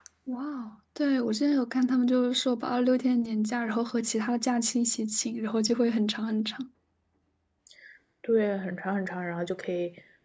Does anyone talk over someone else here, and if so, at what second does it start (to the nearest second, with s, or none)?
none